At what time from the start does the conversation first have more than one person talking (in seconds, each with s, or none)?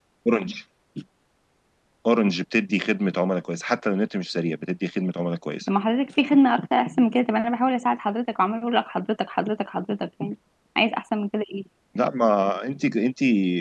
none